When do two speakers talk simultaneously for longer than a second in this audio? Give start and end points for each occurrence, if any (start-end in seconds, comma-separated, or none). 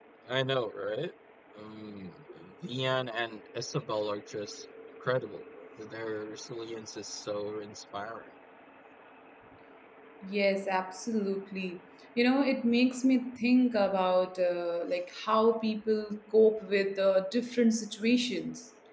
none